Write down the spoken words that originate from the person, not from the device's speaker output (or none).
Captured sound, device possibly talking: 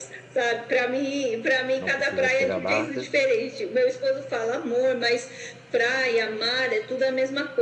não precisa pegar barca.